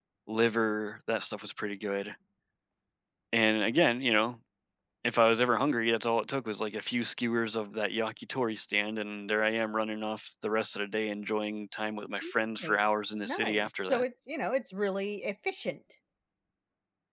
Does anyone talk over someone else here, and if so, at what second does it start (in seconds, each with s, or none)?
12.6 s